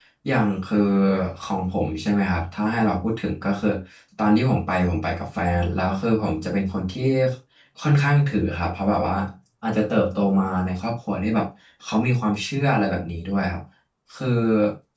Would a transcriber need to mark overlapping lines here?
No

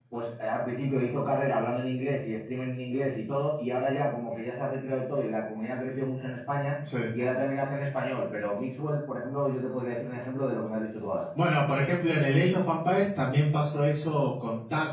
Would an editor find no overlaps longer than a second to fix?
Yes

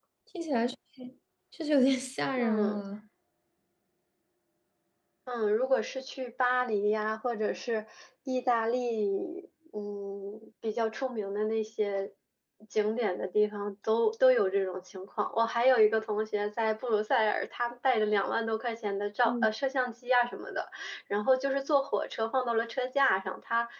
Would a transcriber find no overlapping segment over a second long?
Yes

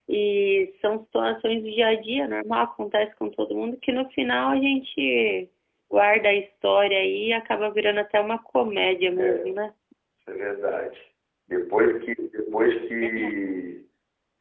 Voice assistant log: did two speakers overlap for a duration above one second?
No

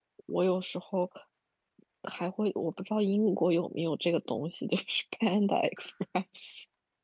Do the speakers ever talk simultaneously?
No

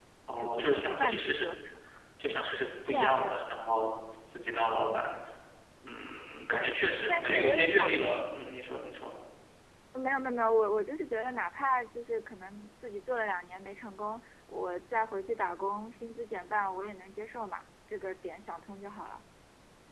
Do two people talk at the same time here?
Yes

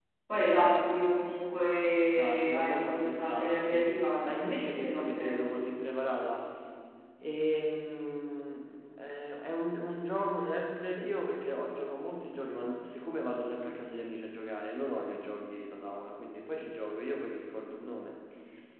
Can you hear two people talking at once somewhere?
Yes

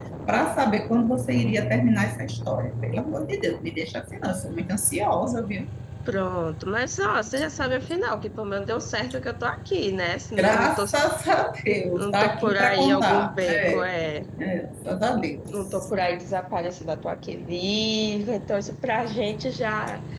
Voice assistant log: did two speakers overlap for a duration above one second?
Yes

